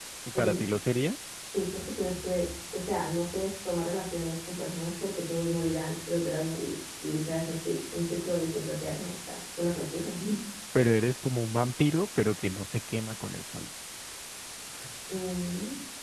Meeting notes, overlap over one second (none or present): none